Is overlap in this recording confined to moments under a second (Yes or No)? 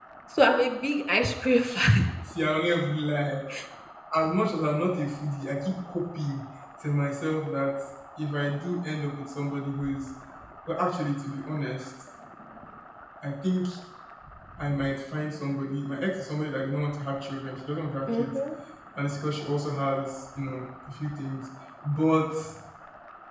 Yes